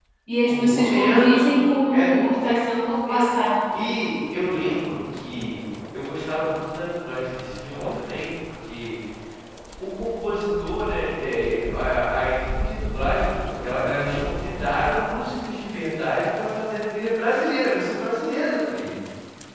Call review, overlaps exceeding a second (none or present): present